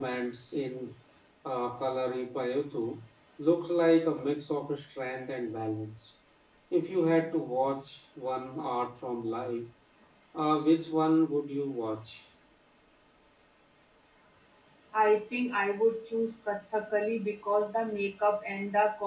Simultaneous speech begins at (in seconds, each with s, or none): none